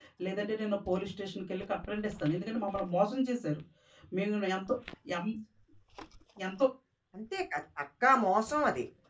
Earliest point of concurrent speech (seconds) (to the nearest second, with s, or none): none